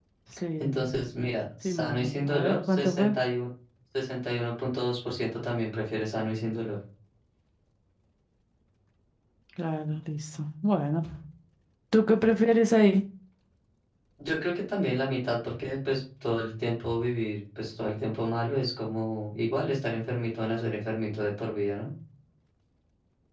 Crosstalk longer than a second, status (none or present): present